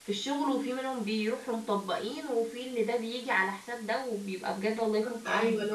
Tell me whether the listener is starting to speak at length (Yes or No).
Yes